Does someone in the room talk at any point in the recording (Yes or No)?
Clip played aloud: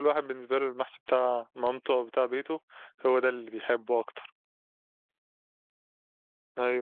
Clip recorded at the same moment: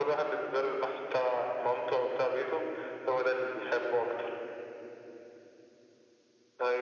No